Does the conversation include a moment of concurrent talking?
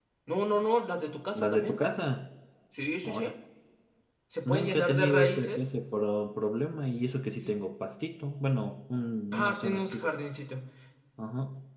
Yes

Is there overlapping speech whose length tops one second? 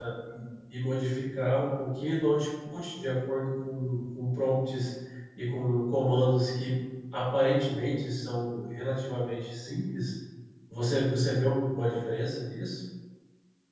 No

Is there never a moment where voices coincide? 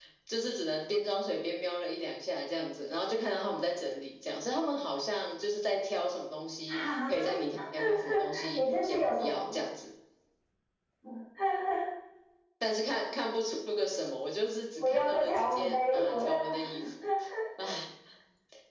No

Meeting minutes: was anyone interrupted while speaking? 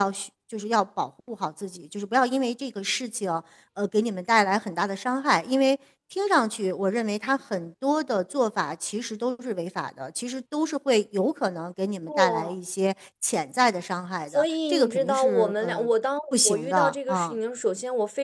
Yes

